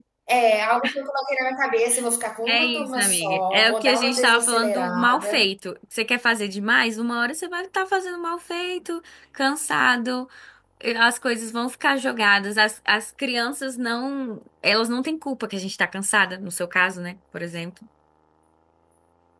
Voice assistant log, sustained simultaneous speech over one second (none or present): present